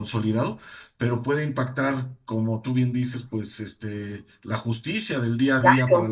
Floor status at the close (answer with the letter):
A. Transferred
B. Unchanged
B